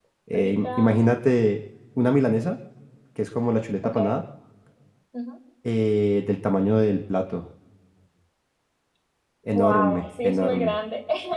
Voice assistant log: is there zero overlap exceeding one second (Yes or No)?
No